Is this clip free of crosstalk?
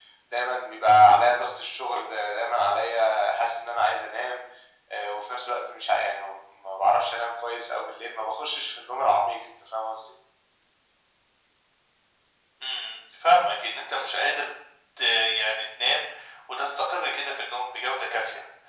Yes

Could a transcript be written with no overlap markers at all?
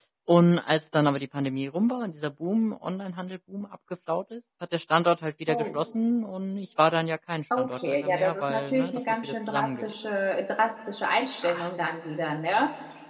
No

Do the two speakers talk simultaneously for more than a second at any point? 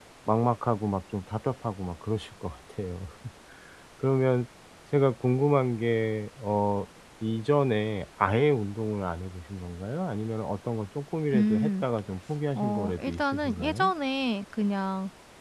Yes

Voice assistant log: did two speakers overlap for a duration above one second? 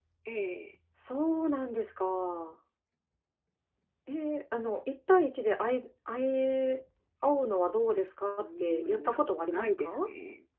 Yes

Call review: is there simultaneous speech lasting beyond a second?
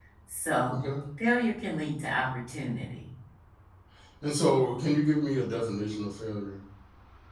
No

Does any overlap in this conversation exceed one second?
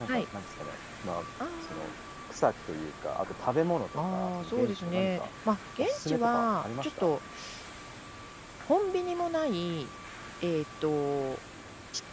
Yes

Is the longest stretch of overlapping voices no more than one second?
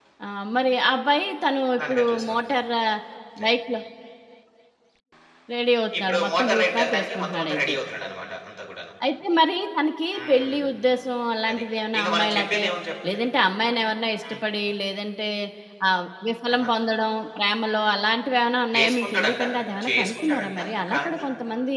No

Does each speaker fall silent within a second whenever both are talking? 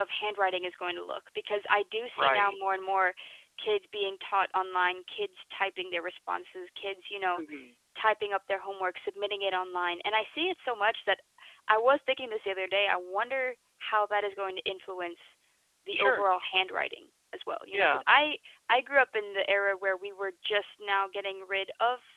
Yes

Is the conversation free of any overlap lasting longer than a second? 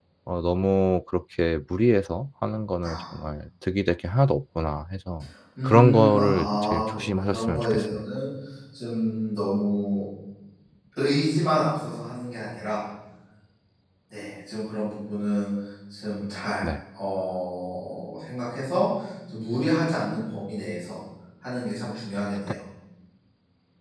No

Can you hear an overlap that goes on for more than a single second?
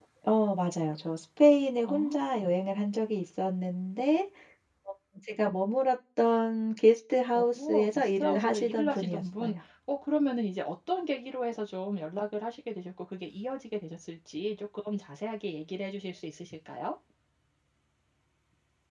Yes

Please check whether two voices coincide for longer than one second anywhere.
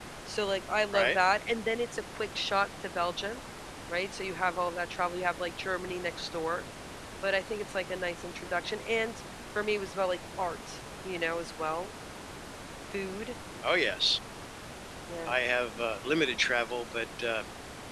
No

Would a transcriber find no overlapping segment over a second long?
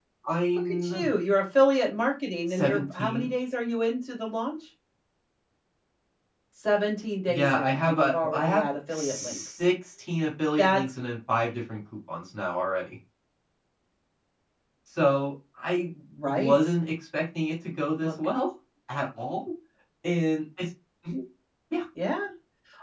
No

